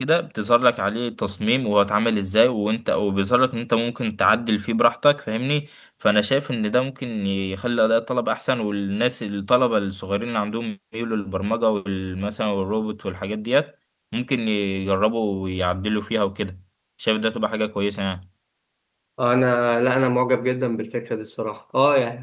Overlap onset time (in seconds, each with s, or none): none